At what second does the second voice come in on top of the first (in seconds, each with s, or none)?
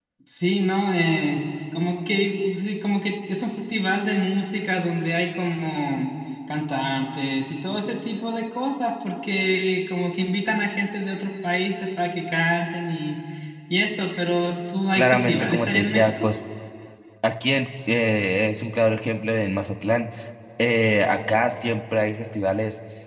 15.0 s